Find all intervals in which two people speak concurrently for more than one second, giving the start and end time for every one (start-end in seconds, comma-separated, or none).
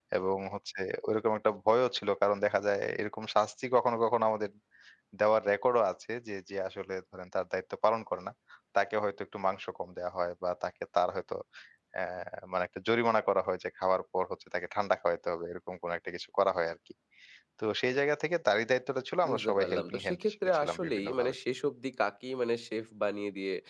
19.3-21.3